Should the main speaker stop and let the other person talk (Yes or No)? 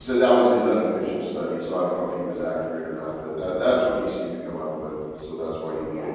Yes